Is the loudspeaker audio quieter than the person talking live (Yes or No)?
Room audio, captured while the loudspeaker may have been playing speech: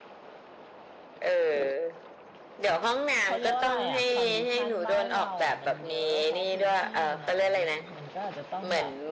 No